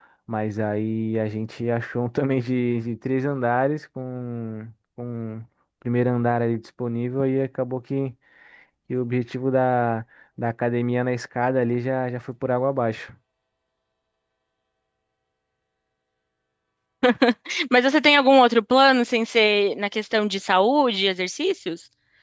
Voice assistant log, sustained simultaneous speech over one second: none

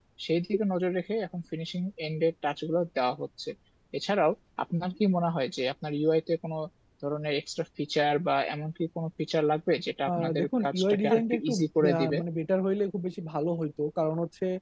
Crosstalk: present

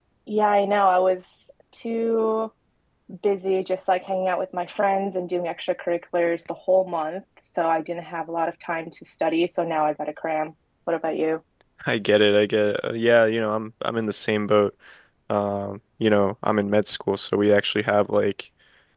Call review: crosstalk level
none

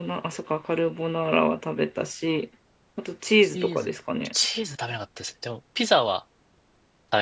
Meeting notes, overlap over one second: none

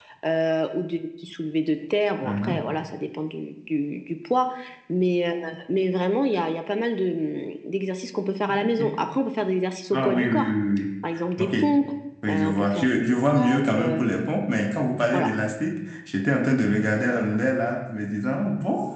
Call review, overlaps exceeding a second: present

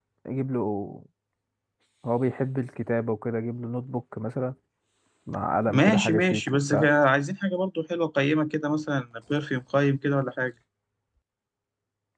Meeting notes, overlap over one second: present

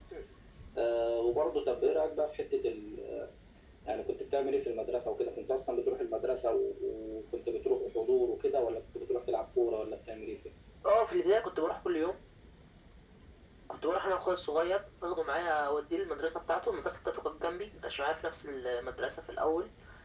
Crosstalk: none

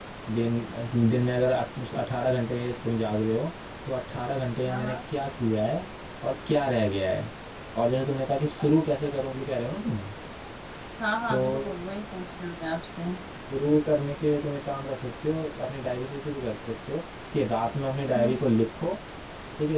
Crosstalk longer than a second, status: none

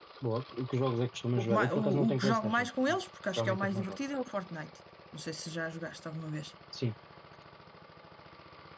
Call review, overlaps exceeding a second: present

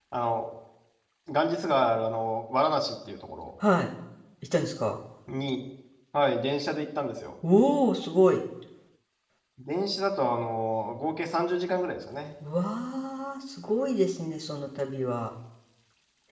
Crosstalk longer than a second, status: none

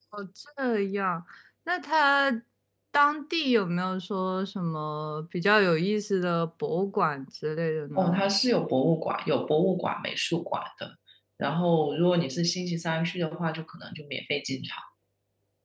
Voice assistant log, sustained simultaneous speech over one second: none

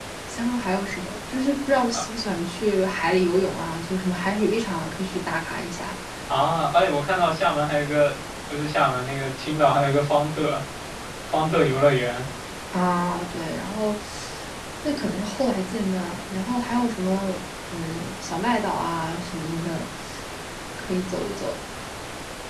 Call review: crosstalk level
none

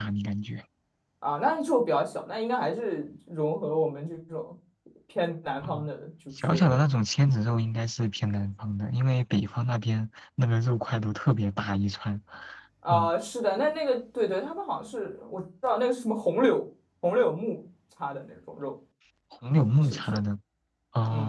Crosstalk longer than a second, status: none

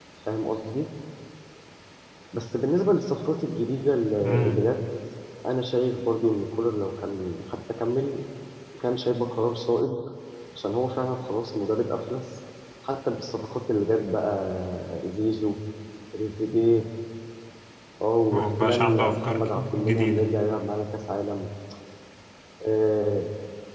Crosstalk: present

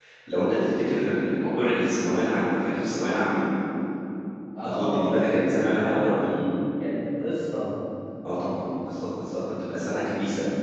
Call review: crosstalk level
present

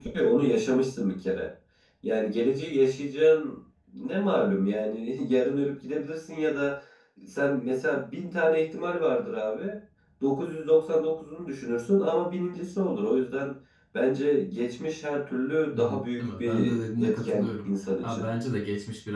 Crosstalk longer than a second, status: present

